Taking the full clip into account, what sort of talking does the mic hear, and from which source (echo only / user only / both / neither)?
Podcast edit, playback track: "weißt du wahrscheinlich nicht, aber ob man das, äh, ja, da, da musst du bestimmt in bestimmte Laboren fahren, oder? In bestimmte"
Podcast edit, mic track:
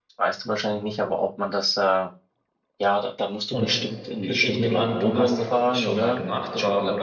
both